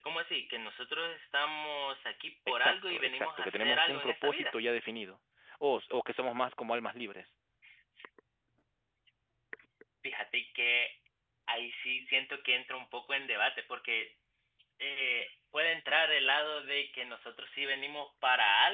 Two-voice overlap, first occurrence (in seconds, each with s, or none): 2.6 s